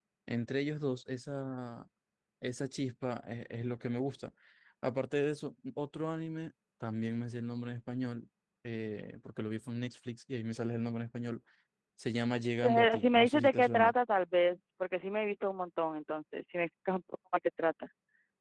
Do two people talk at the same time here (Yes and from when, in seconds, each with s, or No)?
Yes, from 12.6 s